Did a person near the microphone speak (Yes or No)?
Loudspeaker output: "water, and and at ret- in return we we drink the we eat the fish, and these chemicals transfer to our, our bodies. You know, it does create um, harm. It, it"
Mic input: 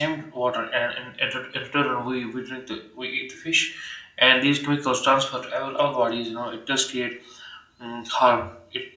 No